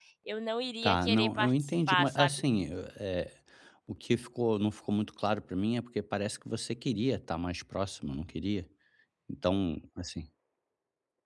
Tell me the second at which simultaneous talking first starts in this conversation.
0.8 s

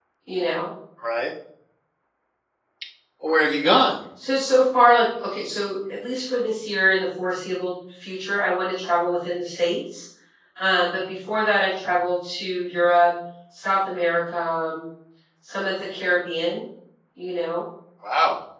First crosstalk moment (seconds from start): none

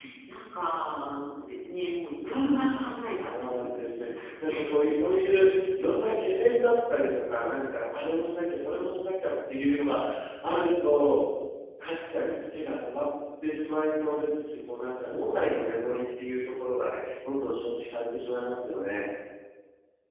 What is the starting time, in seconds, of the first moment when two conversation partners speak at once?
2.2 s

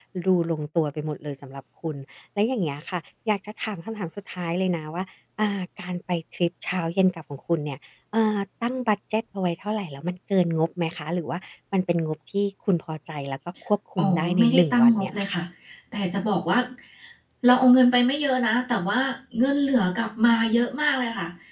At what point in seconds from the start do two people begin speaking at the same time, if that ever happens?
14.0 s

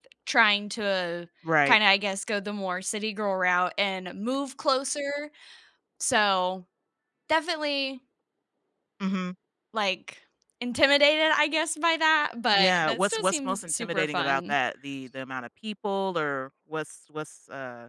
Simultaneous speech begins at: 12.5 s

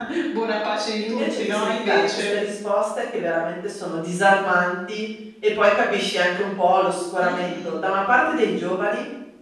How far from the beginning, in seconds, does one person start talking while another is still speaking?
1.0 s

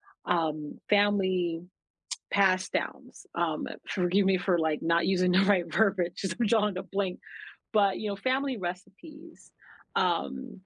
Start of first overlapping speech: none

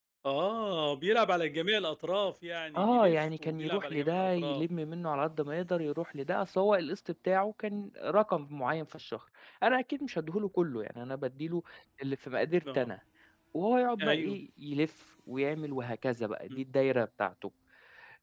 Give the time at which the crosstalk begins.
2.8 s

